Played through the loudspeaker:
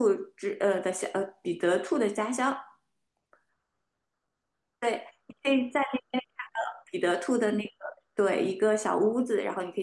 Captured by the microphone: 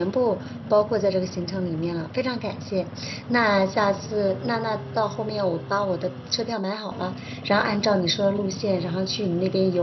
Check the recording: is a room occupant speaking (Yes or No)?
Yes